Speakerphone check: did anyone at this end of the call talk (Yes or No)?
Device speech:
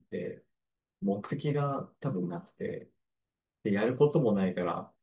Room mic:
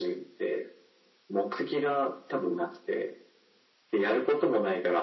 No